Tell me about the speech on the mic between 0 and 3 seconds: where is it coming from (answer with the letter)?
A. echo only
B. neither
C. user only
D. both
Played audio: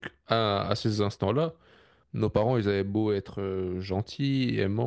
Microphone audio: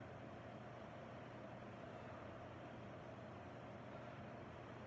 B